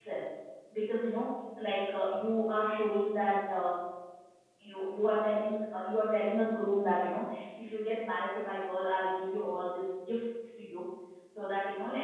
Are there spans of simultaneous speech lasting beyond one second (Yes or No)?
No